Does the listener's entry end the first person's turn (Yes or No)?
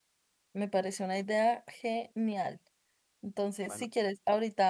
No